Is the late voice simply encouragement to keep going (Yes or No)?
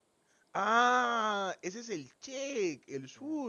Yes